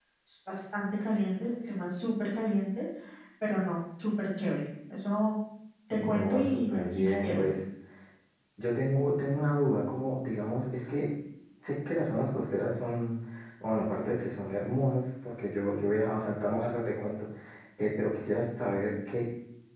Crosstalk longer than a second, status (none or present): present